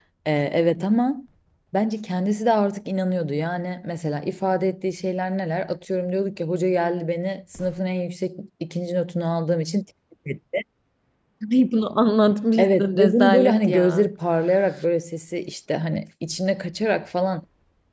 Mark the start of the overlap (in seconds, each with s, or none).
12.6 s